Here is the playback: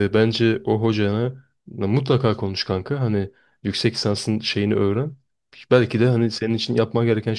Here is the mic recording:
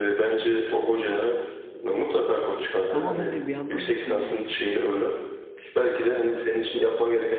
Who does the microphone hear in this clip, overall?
both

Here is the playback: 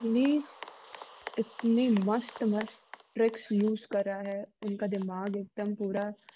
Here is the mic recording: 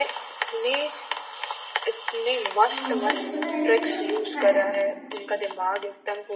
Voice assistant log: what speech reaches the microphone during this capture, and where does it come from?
both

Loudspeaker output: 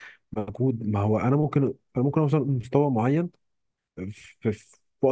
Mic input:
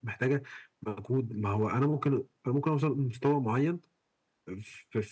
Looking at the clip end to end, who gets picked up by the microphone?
echo only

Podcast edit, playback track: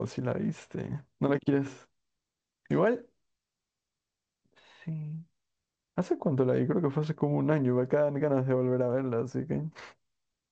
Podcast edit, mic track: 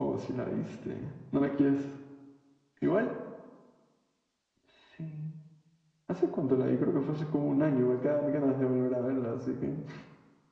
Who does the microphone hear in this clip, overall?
echo only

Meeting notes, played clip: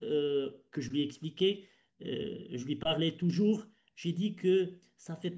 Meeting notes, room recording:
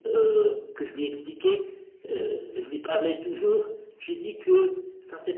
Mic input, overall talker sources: echo only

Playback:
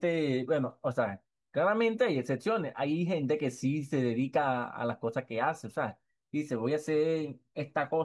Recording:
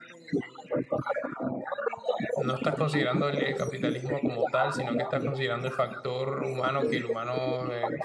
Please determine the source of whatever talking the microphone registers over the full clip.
both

